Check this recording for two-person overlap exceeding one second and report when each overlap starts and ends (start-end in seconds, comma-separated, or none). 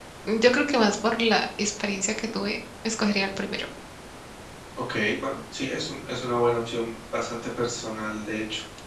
none